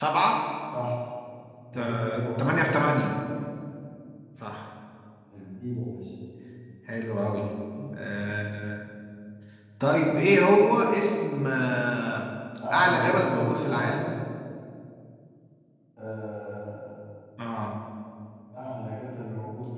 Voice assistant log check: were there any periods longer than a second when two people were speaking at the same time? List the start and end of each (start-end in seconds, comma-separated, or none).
1.8-3.0, 12.7-14.0